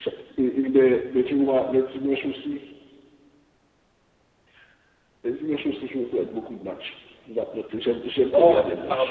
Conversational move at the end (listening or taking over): taking over